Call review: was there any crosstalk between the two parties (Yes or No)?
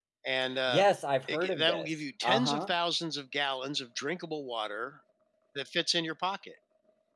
Yes